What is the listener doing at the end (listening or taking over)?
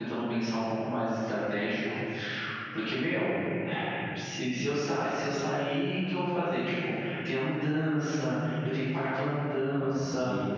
taking over